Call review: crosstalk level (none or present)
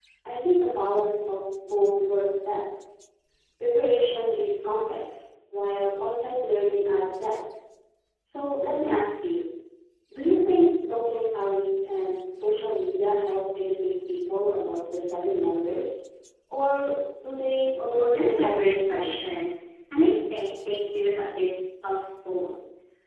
present